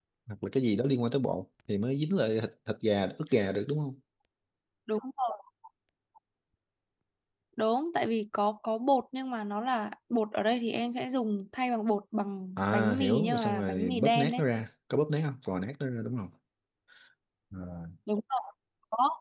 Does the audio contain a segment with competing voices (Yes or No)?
Yes